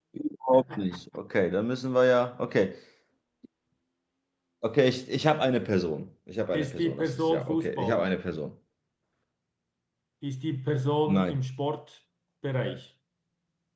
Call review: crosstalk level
present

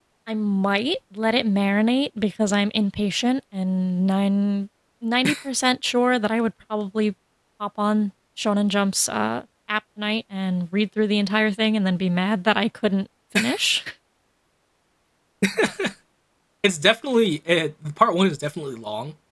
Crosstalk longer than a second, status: none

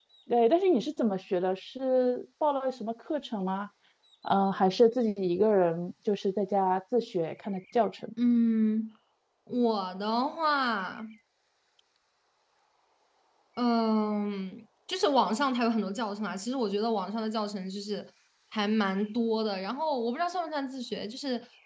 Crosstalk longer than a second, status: none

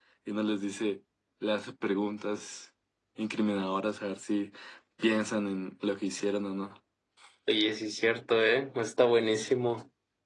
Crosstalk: none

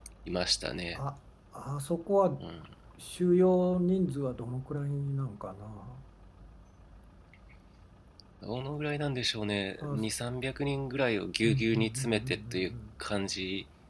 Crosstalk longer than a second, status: present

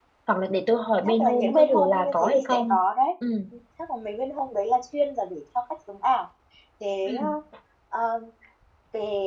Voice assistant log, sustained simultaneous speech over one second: present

